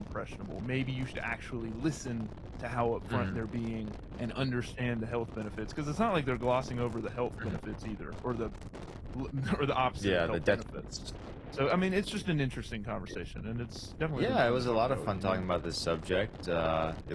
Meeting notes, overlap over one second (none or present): present